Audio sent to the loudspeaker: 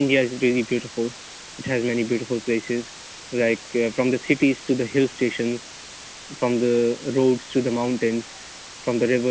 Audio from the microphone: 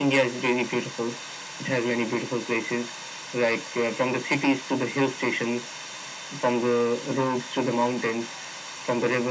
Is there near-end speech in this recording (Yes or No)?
No